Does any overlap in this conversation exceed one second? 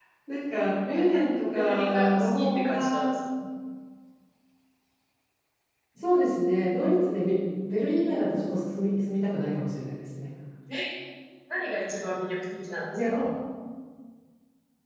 Yes, from 0.9 s

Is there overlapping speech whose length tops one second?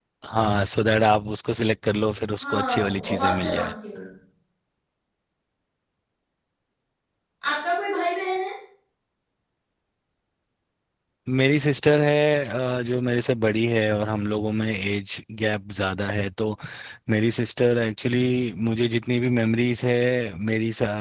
Yes, from 2.4 s

